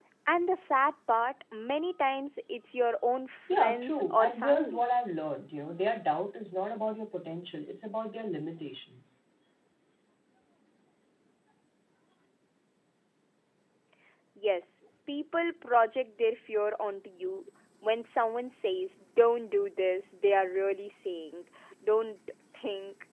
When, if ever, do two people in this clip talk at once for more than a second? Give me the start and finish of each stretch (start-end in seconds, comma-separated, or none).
3.5-4.8